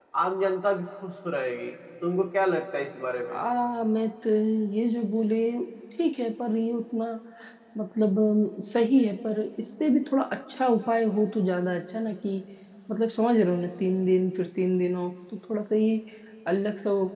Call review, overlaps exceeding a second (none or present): none